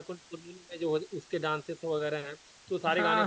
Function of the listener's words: listening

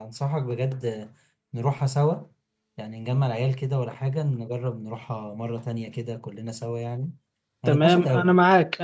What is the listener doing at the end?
taking over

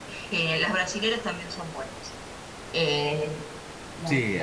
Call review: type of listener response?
listening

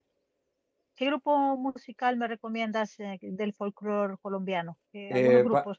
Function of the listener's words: taking over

